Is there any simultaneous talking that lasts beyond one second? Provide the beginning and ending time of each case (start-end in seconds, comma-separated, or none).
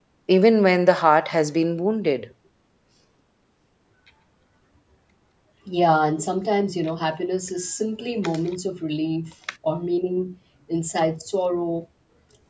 none